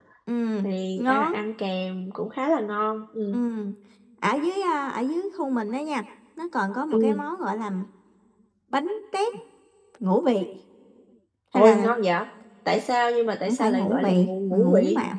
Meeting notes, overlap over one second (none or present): present